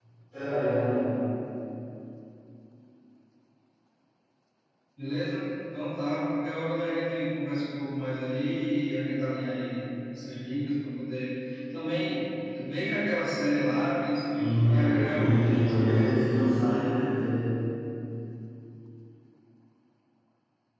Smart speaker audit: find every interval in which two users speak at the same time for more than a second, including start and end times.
14.4-16.4

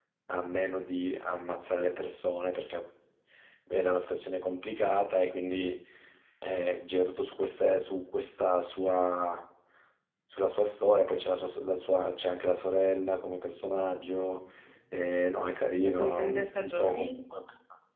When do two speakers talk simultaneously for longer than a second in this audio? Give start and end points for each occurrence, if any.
15.8-17.2

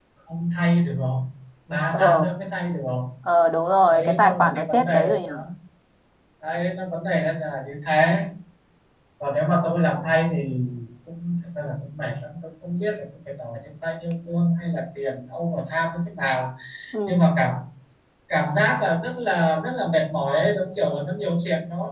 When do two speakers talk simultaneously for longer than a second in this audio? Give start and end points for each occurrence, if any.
3.9-5.3

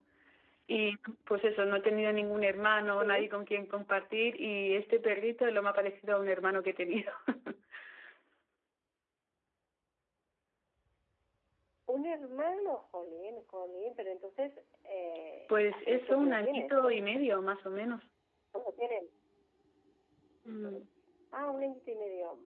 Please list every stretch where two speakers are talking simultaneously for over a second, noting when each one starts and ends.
15.5-16.8

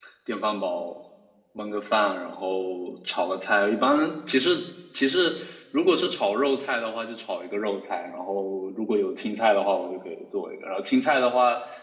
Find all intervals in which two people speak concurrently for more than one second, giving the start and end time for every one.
none

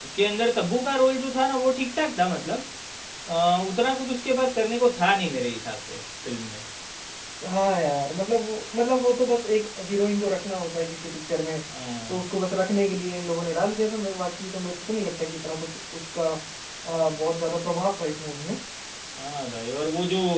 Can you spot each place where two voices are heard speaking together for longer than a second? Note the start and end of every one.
none

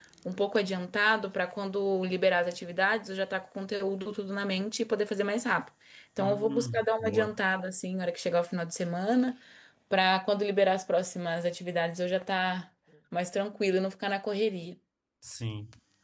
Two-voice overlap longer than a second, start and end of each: 6.2-7.4

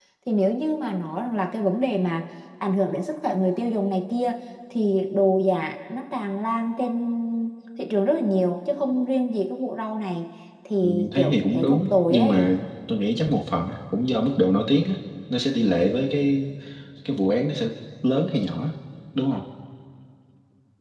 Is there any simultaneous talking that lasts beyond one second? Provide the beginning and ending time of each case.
10.8-12.5

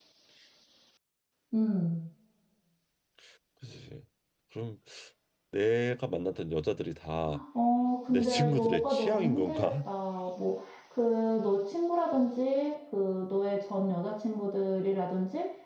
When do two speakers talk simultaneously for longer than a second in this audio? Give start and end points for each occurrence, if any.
8.1-9.9

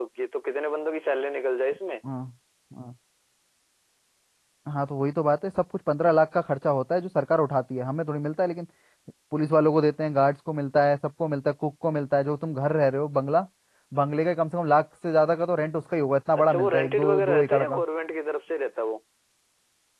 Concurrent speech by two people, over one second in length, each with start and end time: 16.5-17.8

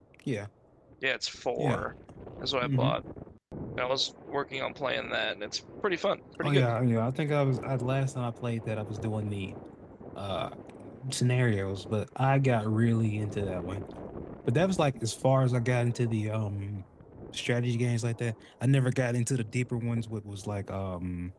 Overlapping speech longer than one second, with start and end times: none

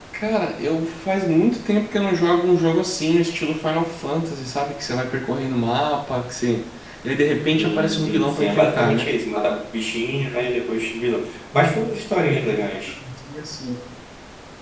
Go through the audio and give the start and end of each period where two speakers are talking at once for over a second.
7.6-9.1

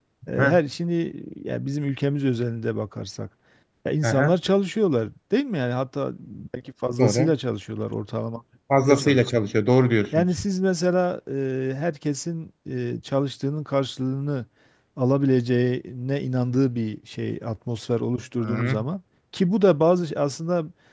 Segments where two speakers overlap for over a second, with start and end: none

